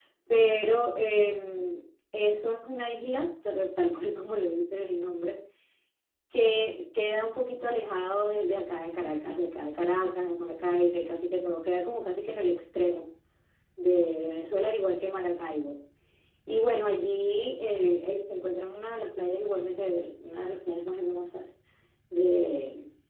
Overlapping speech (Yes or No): No